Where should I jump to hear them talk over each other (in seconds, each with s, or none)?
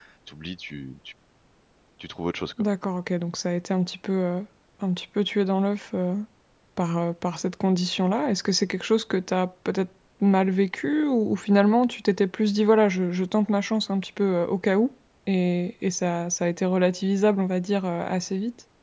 none